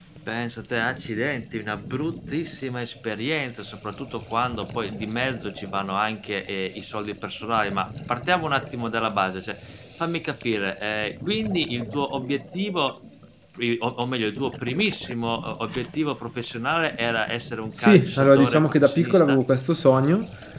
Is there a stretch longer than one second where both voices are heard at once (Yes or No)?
Yes